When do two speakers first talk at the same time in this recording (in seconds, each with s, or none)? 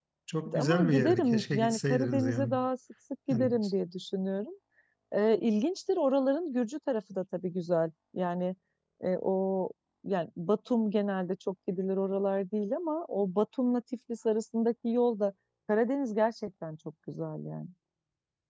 0.6 s